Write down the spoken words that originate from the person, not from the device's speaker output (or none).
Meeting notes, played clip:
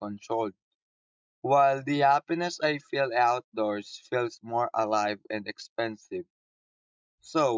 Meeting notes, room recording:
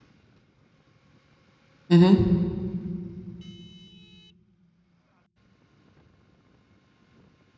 Mm-hmm.